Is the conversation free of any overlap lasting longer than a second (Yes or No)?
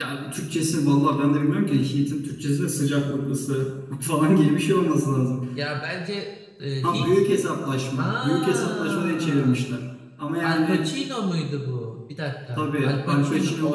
No